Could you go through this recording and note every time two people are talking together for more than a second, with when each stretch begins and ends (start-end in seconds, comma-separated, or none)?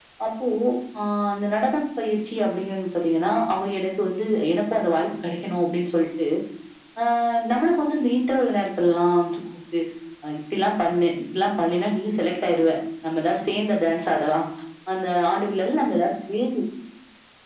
none